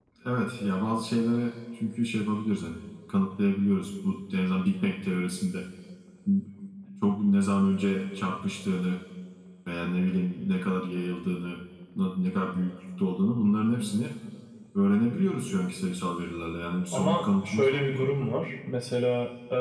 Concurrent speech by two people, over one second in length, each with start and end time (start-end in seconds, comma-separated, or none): 16.9-18.3